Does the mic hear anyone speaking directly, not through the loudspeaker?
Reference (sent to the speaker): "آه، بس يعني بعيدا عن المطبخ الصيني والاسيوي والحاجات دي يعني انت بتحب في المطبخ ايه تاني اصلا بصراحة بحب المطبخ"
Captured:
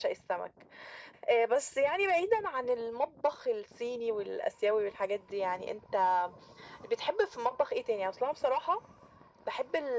No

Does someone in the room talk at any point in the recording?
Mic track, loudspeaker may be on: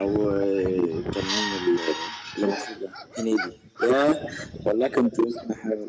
No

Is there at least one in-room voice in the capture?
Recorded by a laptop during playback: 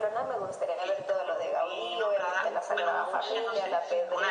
Yes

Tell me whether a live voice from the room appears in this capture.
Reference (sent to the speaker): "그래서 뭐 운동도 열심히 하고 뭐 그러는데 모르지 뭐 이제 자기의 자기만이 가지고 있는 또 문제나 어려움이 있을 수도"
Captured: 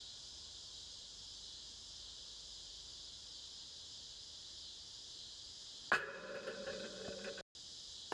No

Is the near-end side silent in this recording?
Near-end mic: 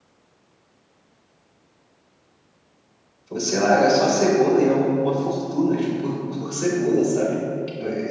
No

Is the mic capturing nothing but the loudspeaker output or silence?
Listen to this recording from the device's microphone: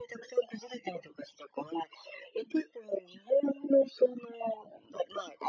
Yes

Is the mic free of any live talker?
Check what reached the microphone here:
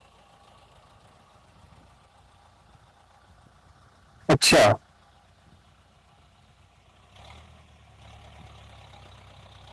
No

